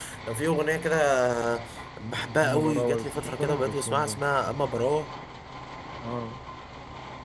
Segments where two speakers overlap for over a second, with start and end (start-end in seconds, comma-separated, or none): 2.4-4.2